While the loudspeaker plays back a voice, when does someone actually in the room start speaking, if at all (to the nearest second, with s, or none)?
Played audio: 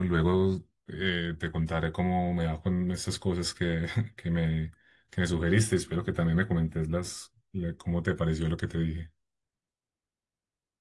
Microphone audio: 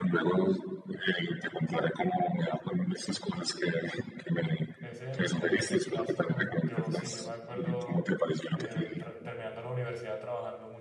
5 s